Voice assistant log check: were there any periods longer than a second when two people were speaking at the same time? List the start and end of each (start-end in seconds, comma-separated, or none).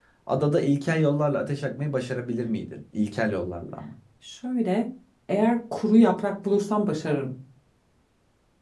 none